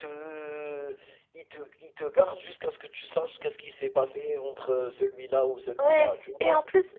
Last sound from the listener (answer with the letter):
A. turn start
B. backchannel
A